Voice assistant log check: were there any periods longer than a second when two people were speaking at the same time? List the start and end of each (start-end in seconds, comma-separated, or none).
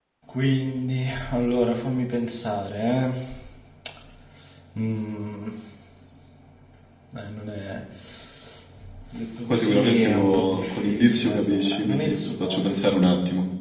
9.5-12.7